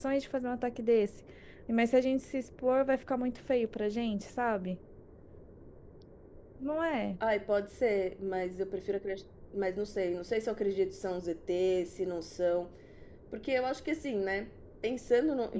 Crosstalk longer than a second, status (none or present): none